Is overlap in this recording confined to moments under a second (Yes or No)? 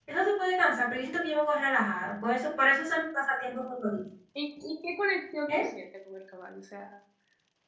Yes